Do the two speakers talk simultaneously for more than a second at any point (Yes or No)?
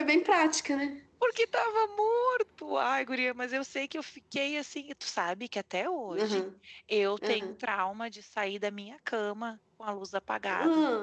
No